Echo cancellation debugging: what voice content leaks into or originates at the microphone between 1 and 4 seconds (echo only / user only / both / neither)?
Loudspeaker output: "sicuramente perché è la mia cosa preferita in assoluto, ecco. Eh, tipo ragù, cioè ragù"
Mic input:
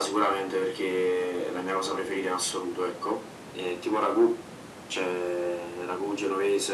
echo only